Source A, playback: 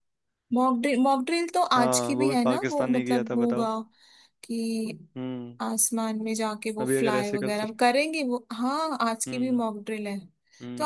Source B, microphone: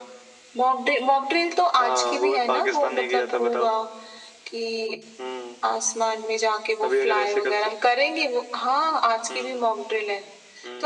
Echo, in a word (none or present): present